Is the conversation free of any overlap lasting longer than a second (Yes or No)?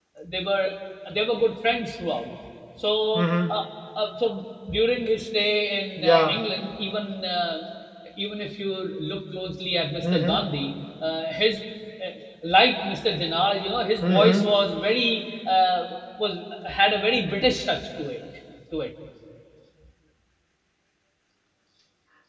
Yes